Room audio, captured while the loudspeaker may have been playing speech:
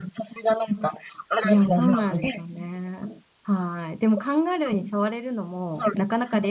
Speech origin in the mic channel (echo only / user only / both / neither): both